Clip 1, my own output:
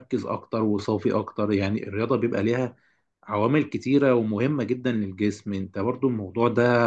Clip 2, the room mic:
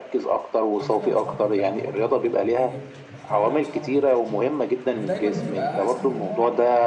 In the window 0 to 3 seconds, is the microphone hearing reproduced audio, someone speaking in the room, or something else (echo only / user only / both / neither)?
both